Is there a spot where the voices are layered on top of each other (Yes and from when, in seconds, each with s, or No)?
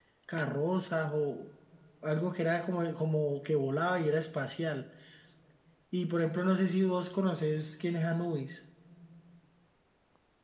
No